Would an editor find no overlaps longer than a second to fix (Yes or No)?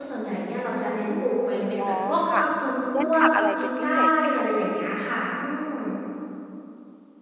No